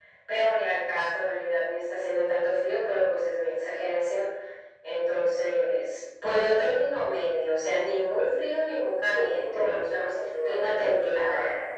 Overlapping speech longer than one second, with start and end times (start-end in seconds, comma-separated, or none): 9.2-10.7